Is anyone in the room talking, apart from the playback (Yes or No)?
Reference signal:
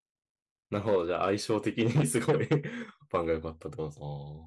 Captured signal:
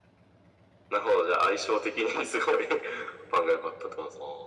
No